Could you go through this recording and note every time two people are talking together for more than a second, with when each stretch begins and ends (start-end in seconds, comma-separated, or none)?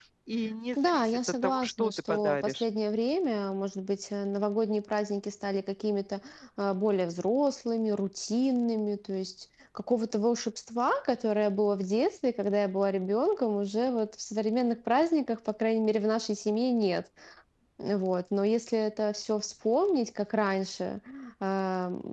0.8-2.6